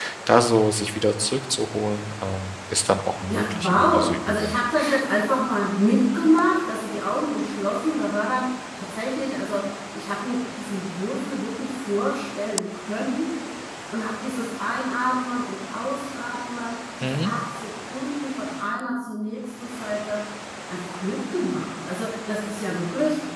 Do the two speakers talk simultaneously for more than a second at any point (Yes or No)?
Yes